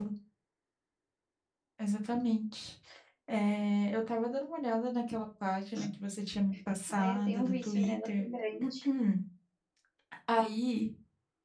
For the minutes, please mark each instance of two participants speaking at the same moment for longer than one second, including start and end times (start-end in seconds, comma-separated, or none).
7.0-8.3